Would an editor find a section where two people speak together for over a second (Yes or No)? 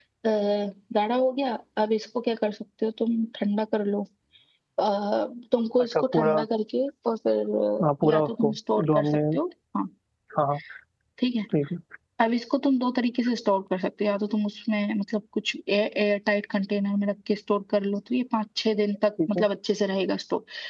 Yes